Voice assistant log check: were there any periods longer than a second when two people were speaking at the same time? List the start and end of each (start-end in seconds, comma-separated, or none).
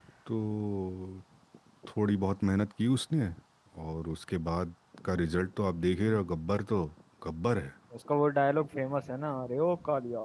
none